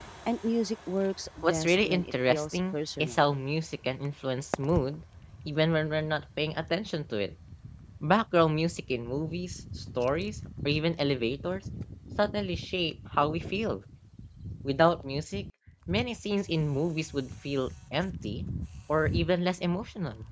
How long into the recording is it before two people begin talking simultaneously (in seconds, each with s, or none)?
1.4 s